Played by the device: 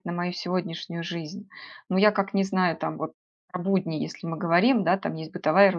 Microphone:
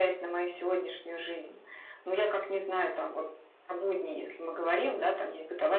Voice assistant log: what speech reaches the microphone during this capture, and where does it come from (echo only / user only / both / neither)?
echo only